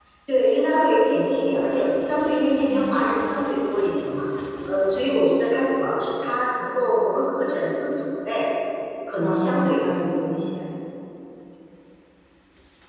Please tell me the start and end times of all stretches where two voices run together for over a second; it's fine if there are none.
9.2-10.4

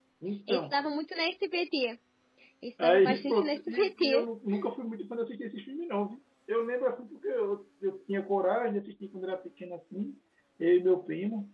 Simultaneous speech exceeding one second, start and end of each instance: 2.8-4.2

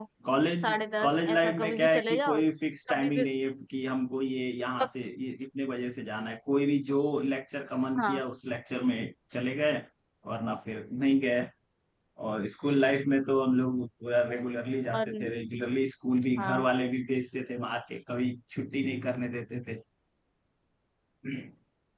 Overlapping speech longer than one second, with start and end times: 0.6-2.4

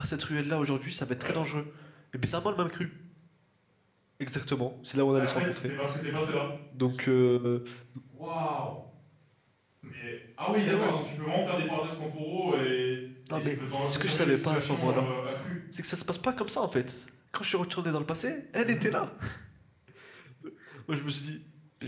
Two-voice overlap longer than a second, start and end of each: 13.3-15.1

